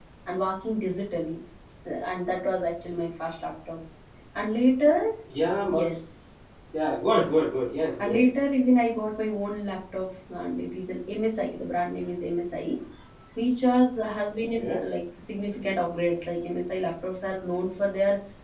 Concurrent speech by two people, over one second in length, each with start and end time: none

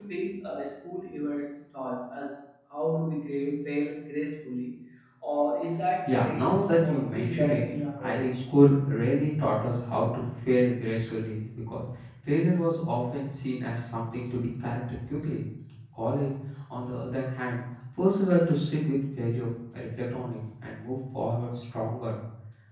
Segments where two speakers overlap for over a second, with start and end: 6.0-7.7

